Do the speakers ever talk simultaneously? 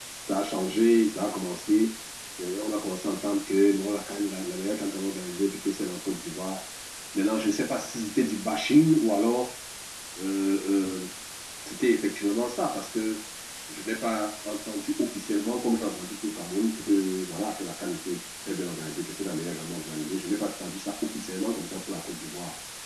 No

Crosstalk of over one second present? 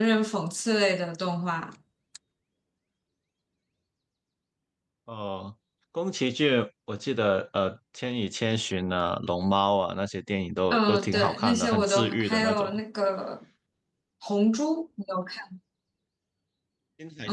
Yes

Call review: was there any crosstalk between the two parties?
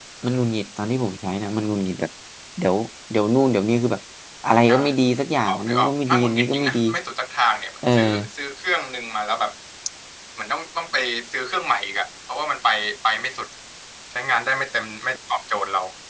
Yes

